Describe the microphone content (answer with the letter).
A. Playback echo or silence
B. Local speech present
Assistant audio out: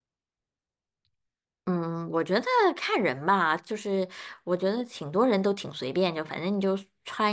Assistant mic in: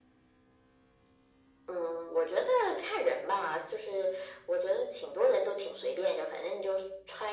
A